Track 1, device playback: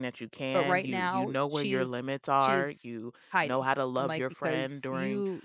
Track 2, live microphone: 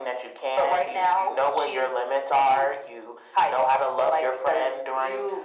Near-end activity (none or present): none